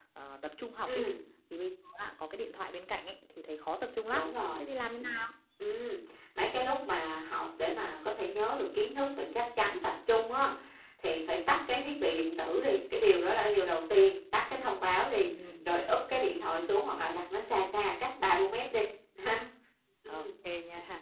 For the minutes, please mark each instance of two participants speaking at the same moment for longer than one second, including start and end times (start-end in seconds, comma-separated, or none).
none